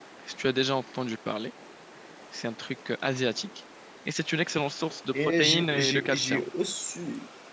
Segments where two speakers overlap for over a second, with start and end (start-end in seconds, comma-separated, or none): 5.2-6.4